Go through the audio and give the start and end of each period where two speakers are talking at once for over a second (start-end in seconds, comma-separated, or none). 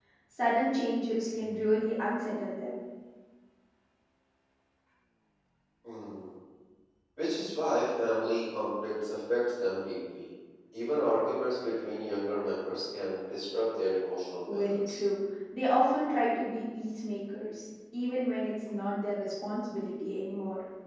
none